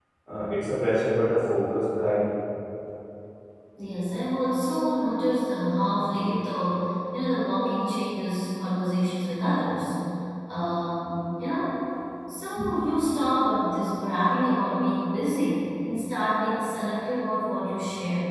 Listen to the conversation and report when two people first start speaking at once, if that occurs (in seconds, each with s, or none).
none